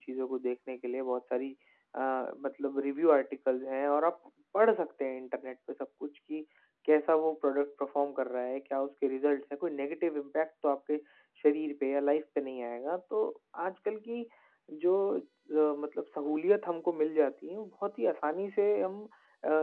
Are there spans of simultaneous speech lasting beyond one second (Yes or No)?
No